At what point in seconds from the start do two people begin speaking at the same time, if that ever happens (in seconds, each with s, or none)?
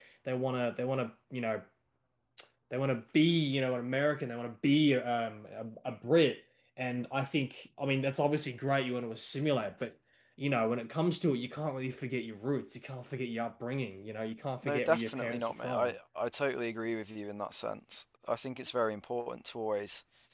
14.6 s